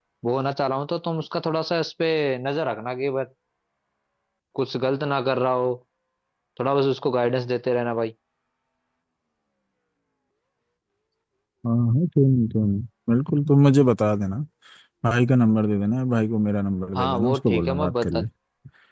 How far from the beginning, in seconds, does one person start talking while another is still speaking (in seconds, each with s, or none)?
16.9 s